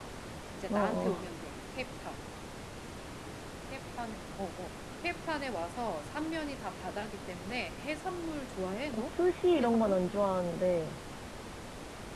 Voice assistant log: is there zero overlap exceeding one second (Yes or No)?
Yes